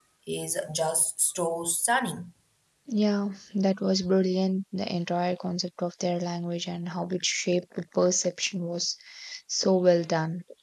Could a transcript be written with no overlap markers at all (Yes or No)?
Yes